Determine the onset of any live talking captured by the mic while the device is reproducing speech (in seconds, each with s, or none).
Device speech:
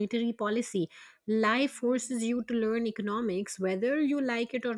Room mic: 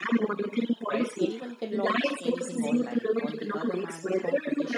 0.9 s